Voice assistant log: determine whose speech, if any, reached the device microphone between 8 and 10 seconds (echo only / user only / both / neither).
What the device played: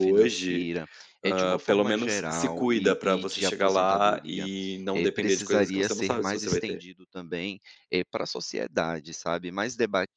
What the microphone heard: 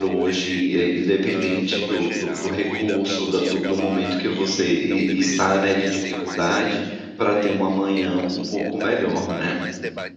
both